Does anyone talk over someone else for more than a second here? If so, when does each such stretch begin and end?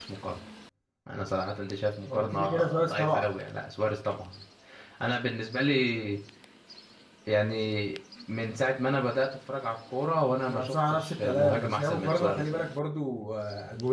2.1-3.3, 10.5-12.6

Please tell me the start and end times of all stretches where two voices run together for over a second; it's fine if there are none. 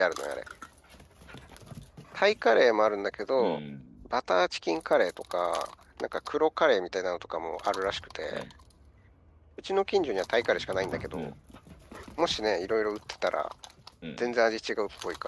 none

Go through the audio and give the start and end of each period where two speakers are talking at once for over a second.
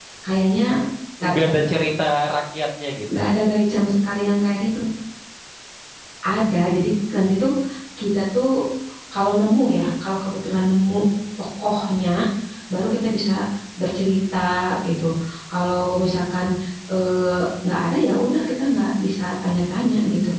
none

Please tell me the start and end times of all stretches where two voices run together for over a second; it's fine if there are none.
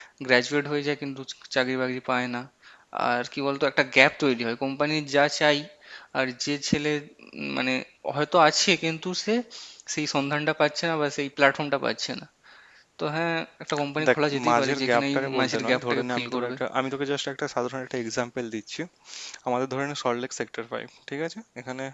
14.1-16.6

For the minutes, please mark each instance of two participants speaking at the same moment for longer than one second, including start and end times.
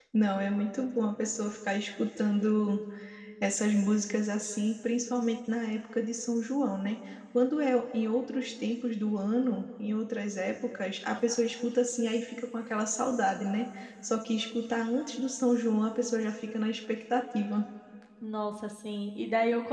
none

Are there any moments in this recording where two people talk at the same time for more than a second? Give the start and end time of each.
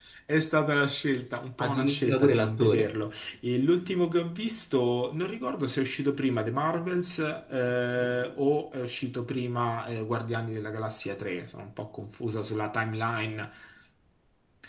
1.6-3.0

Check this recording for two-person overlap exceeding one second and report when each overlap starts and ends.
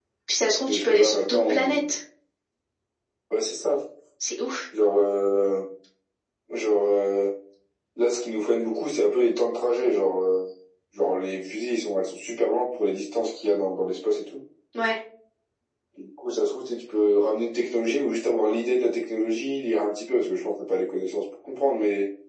0.7-1.9

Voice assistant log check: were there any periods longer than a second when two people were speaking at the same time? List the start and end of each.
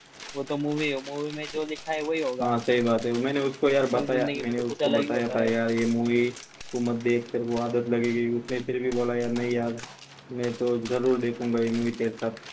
3.9-5.5

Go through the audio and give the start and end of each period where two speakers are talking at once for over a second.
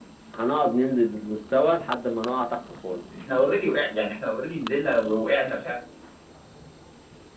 none

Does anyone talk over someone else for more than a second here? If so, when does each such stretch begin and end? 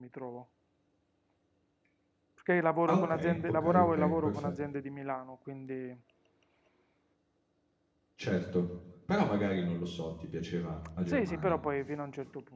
2.9-4.5

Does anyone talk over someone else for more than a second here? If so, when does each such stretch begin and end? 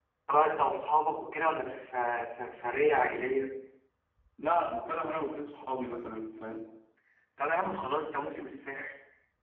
none

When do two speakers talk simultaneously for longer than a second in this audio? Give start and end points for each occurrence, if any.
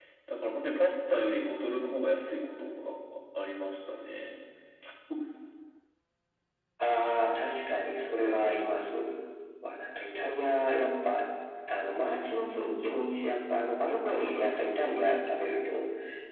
none

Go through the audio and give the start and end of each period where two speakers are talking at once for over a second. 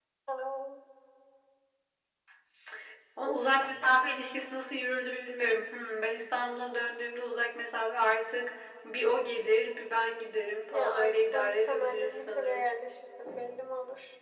10.7-12.7

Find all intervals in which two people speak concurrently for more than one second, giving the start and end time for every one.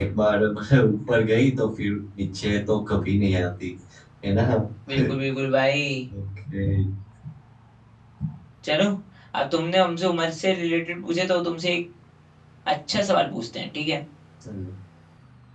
none

